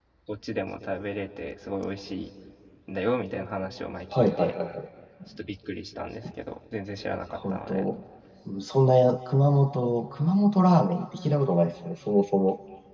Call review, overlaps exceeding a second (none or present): none